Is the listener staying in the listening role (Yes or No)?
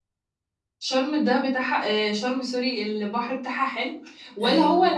Yes